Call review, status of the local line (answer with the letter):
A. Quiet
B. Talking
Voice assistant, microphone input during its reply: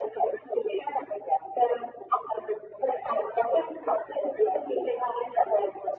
A